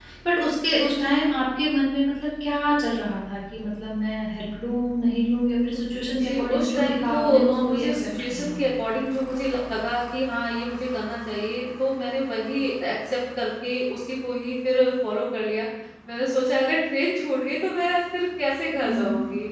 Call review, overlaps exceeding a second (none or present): present